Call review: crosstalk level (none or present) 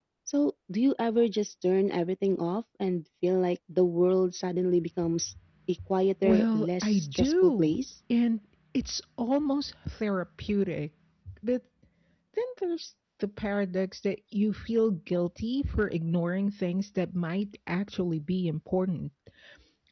present